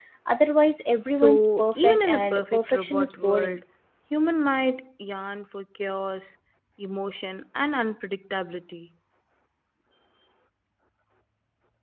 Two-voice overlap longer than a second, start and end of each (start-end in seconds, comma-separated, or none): 1.1-3.6